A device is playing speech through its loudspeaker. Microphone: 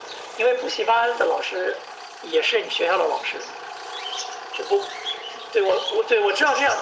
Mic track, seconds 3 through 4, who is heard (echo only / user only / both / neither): echo only